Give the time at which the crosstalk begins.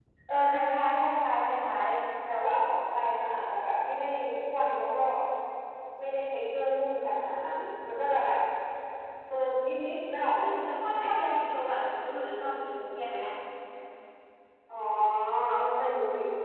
none

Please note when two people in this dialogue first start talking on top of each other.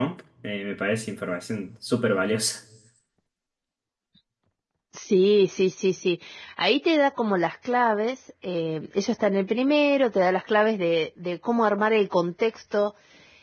none

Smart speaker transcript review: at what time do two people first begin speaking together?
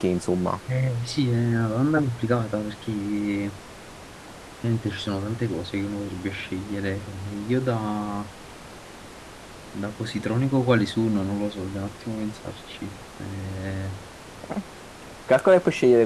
none

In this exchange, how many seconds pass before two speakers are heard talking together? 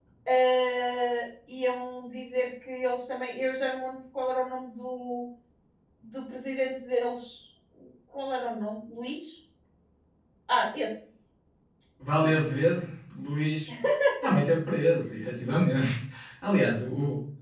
none

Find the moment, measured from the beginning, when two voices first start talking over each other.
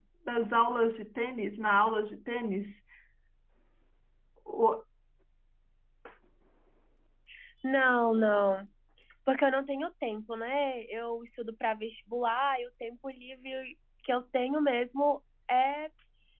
none

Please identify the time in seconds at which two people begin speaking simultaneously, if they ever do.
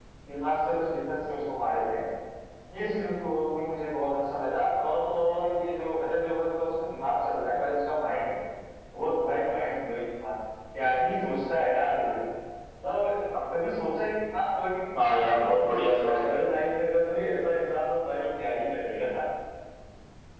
14.9 s

